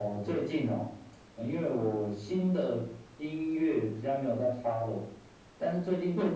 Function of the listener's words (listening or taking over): listening